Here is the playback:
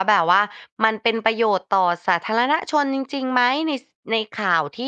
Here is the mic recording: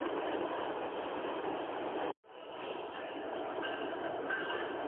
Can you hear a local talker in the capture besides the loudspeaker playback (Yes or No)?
No